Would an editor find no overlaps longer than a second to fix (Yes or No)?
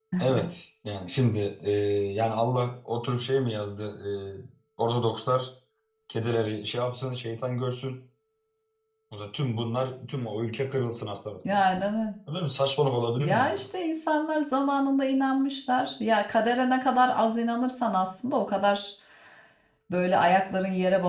Yes